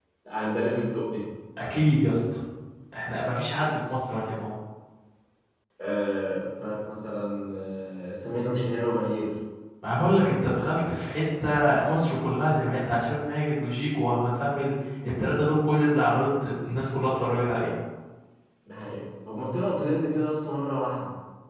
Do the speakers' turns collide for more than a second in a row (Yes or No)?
No